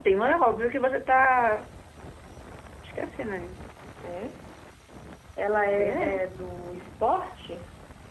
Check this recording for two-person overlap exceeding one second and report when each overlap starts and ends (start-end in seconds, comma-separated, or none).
none